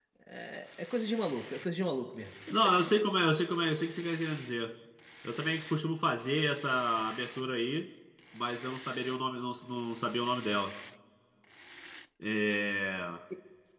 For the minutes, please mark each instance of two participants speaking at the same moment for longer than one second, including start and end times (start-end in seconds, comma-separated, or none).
none